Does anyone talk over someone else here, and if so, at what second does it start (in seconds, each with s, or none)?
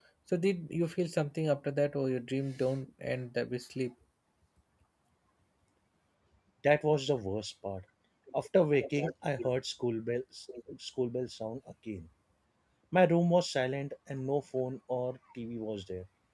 none